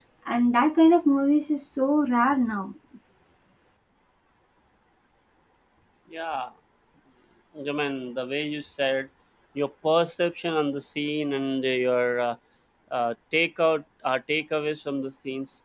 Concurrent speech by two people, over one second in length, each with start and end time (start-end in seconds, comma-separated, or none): none